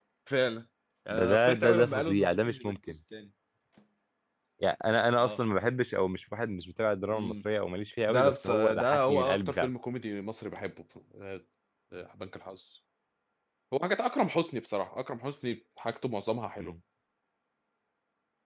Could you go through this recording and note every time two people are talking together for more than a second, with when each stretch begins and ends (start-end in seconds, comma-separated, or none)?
1.1-2.8, 8.1-9.7